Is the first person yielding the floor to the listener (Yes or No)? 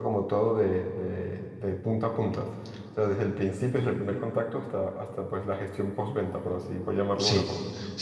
Yes